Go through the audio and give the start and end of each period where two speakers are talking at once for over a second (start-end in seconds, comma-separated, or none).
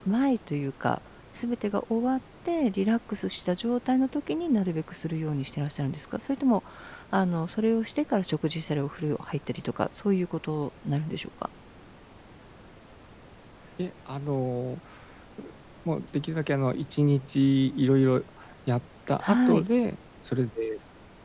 none